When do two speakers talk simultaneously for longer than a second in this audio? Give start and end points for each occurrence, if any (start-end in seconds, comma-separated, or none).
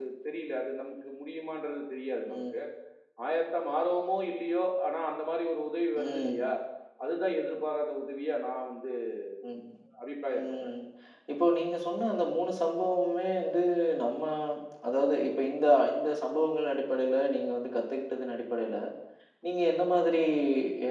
none